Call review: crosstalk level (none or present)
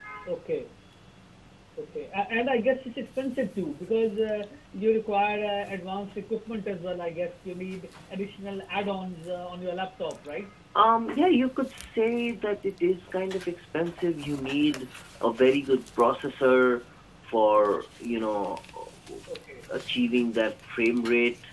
none